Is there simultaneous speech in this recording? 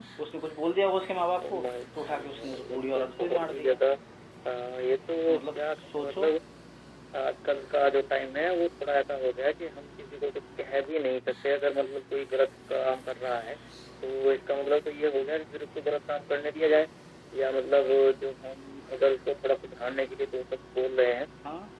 Yes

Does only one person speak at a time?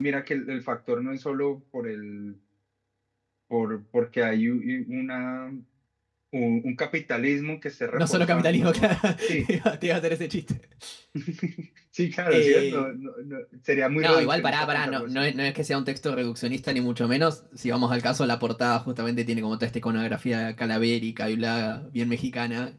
No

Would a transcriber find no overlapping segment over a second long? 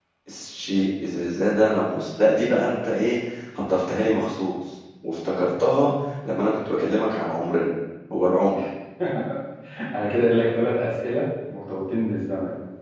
Yes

